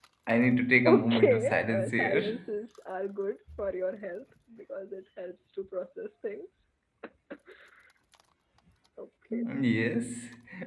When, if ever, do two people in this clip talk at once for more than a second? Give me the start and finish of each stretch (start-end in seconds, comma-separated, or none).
0.8-2.4